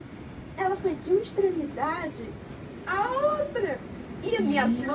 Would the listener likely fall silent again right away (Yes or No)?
Yes